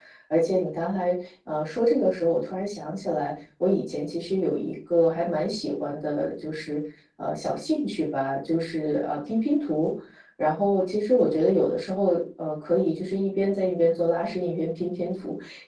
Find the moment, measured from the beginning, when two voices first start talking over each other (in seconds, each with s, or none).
none